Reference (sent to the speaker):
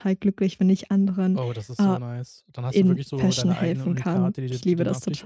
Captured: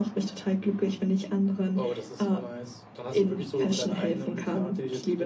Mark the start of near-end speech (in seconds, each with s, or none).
none